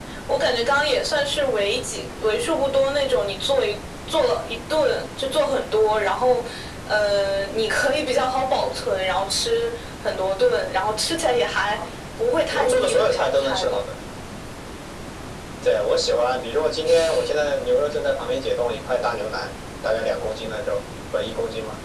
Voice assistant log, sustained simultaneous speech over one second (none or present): present